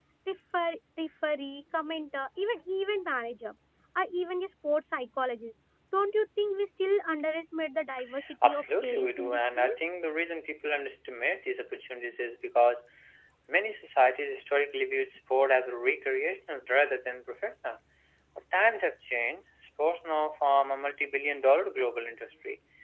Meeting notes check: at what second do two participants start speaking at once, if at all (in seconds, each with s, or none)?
8.4 s